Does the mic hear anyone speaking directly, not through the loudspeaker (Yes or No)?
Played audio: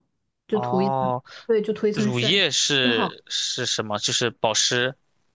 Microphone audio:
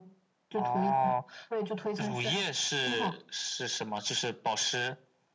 No